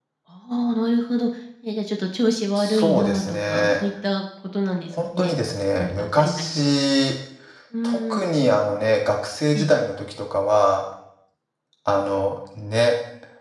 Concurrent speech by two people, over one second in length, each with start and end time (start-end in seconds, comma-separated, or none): 2.6-3.8, 5.0-6.7